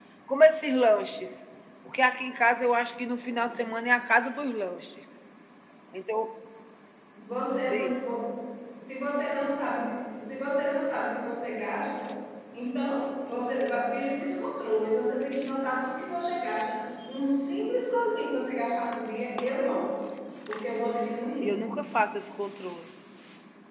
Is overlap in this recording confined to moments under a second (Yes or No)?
Yes